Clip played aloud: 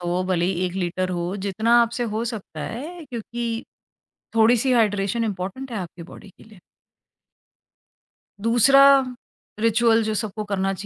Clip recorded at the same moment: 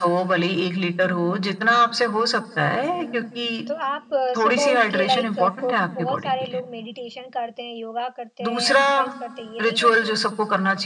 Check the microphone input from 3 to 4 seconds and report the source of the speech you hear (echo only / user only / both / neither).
both